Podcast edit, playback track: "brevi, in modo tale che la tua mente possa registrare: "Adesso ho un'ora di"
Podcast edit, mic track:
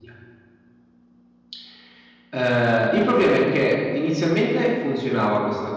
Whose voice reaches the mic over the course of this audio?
user only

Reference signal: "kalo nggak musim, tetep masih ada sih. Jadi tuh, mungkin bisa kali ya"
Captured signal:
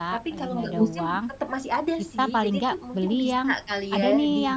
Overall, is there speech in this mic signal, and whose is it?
both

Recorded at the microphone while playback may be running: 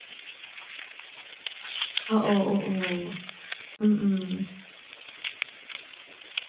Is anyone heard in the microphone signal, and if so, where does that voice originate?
user only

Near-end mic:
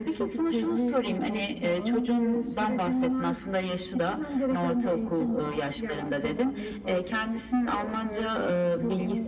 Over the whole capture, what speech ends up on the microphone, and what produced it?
echo only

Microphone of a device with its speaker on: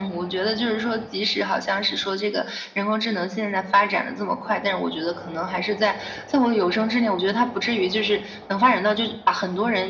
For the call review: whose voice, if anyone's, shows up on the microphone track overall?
echo only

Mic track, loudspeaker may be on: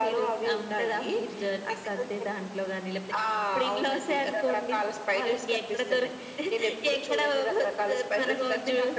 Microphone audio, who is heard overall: echo only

